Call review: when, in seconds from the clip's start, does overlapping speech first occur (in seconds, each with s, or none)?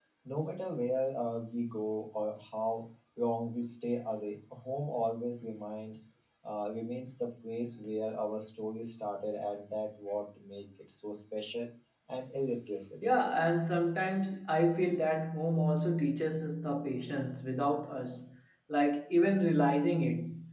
none